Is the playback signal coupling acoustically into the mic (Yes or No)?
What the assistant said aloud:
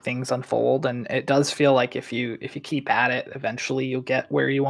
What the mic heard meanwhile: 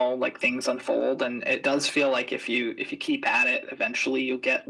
Yes